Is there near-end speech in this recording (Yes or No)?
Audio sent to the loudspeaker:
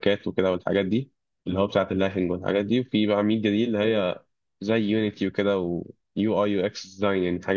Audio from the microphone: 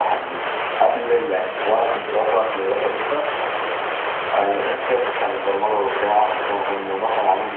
Yes